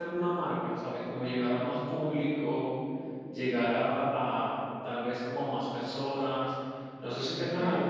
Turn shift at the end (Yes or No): Yes